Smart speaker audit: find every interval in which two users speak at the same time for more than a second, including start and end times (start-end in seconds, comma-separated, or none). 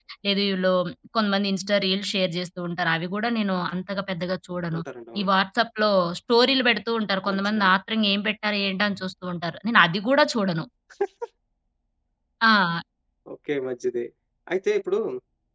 none